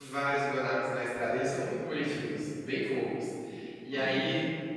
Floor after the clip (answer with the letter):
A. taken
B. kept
B